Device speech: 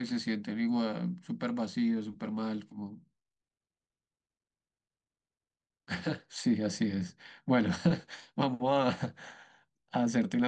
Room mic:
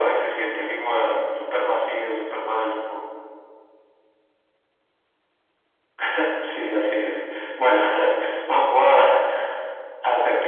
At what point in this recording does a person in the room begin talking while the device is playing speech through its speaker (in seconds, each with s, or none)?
none